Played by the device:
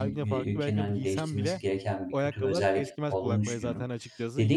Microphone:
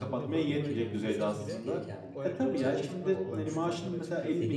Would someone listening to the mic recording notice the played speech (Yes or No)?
Yes